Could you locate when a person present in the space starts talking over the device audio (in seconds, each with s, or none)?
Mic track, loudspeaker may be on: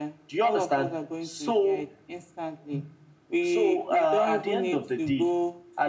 none